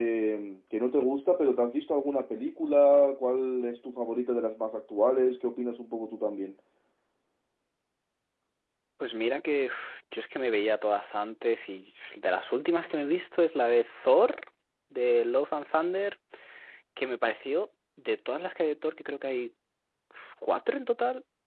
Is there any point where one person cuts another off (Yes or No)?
No